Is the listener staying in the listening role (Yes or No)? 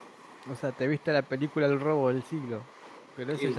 No